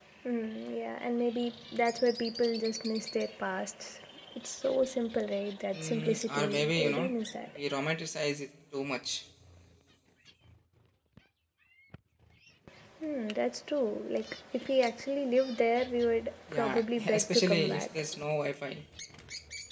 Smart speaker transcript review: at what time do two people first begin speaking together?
5.7 s

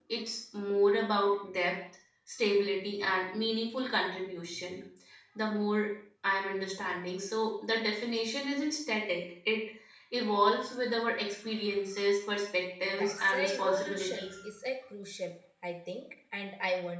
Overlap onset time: 12.9 s

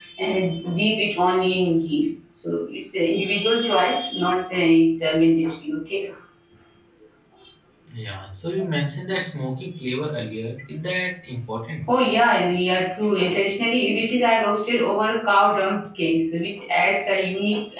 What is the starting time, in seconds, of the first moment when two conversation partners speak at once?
none

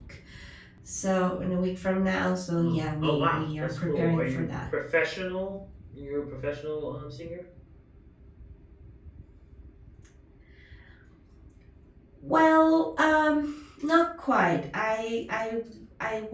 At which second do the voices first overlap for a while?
2.5 s

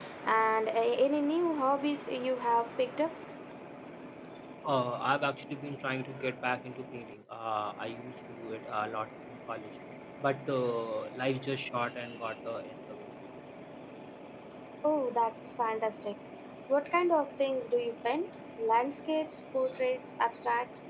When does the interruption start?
none

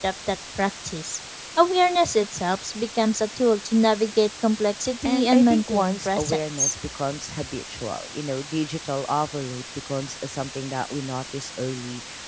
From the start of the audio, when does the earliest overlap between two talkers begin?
5.0 s

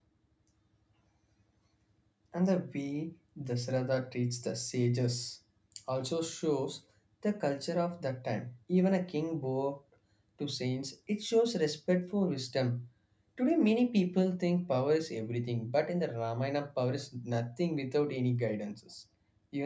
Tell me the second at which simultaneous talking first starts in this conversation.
none

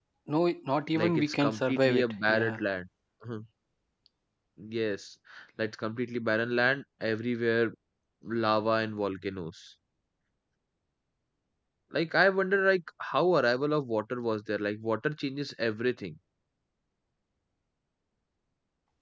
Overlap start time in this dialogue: 0.9 s

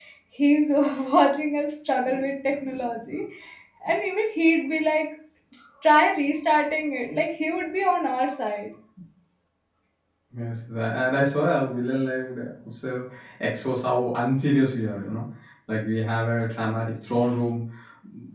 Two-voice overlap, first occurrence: none

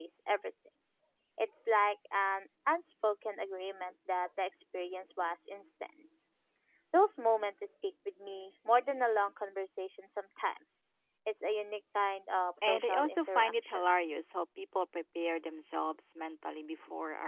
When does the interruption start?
12.6 s

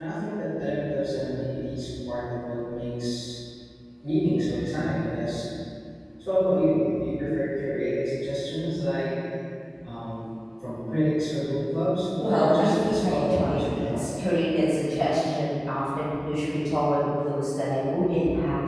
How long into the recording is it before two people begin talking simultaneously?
12.2 s

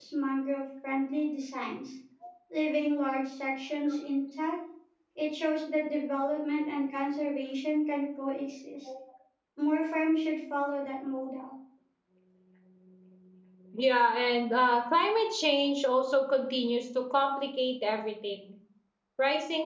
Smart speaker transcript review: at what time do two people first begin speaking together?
none

